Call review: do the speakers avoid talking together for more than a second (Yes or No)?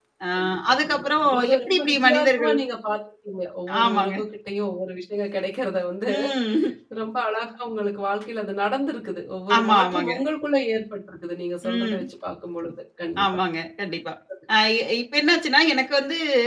No